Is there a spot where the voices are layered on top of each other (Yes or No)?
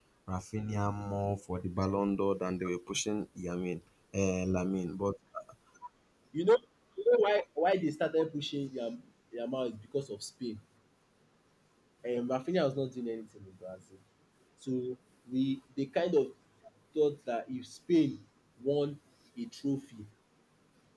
No